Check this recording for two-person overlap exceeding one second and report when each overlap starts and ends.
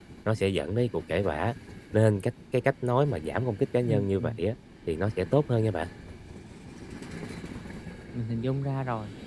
none

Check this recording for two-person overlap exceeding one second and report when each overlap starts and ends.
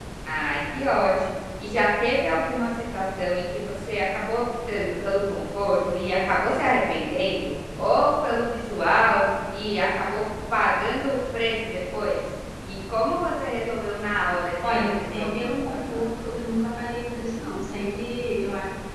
14.8-16.0

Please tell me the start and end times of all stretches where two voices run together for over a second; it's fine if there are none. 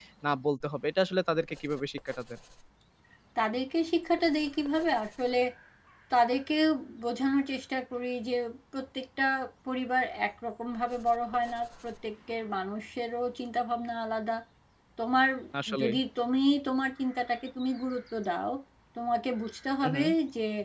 none

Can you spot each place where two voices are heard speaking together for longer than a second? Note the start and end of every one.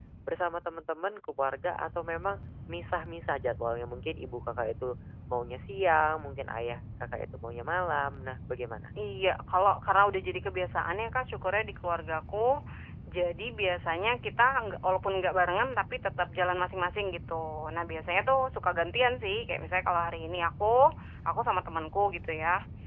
none

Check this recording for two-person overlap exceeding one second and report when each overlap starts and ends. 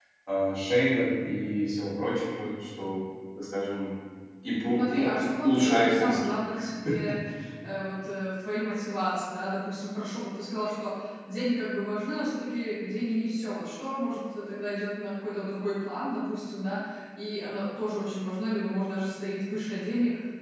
4.8-6.4

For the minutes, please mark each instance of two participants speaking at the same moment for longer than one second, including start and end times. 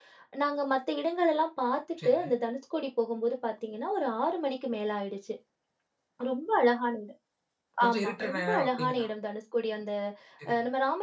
7.9-9.1

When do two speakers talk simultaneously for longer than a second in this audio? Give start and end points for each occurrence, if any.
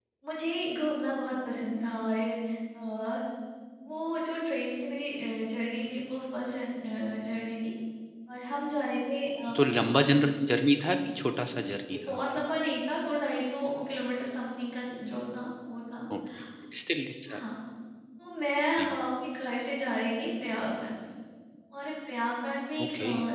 none

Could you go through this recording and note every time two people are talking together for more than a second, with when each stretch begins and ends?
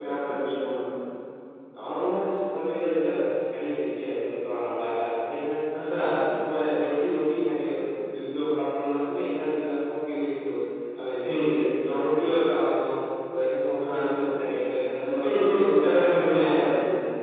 15.0-16.5

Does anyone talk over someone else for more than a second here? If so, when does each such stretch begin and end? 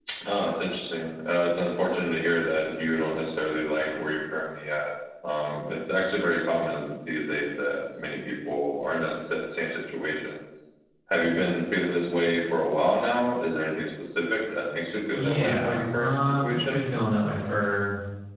15.1-16.8

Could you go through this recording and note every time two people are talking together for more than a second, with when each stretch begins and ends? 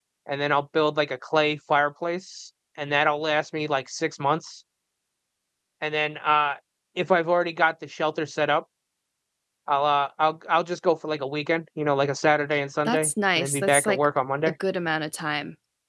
12.8-14.1

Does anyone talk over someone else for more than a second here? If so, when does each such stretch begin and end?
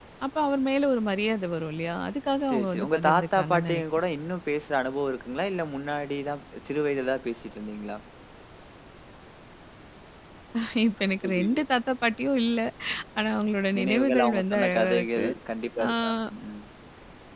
2.4-4.0, 13.8-15.2

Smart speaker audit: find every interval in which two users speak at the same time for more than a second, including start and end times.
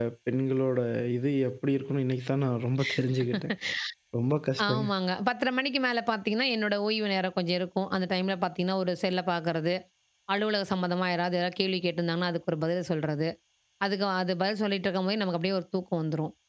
none

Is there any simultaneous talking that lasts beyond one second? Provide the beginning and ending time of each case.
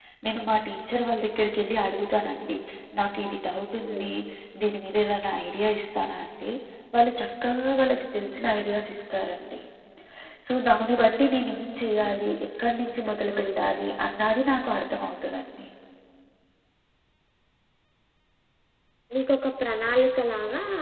none

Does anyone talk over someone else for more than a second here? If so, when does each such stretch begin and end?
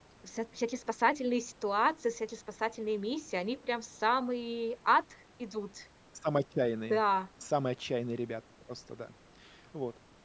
none

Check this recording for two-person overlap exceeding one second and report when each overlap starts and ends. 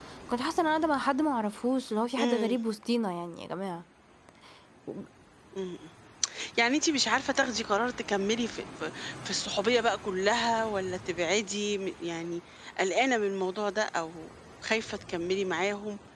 none

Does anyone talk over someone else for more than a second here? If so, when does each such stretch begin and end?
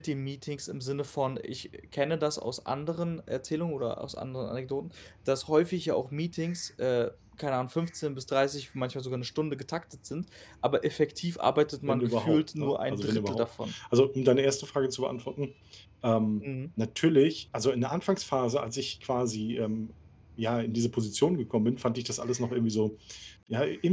11.9-13.7

